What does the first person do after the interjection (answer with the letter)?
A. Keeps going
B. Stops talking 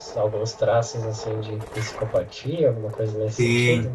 B